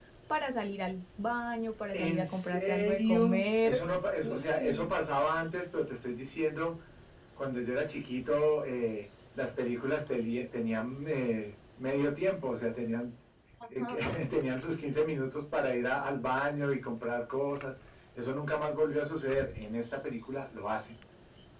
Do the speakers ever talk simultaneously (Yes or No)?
Yes